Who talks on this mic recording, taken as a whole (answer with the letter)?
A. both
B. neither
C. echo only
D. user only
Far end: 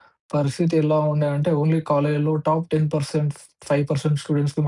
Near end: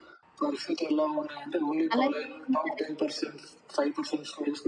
A